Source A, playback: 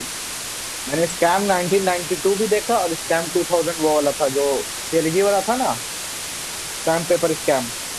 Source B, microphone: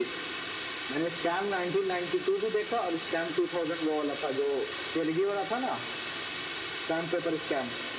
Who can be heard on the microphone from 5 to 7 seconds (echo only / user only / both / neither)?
echo only